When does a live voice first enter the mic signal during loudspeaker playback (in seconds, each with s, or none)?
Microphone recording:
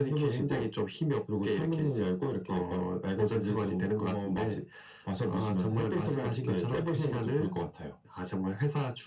none